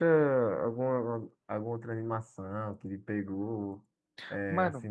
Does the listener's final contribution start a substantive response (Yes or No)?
No